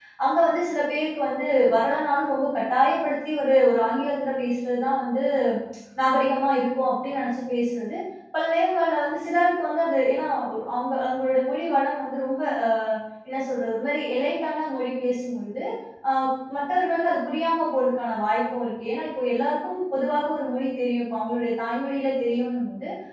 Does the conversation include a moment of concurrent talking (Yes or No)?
No